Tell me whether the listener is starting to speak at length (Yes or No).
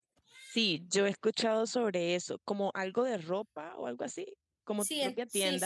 Yes